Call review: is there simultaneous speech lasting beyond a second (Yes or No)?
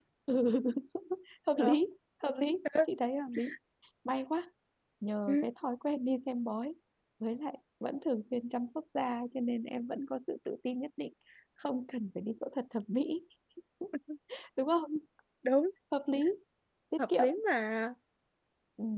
No